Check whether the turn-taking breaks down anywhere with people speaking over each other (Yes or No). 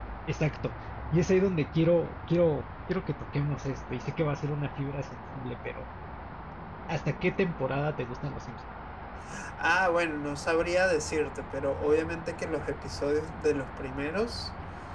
No